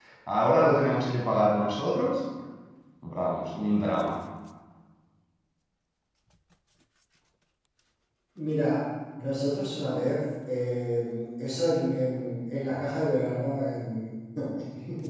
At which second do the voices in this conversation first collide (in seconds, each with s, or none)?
none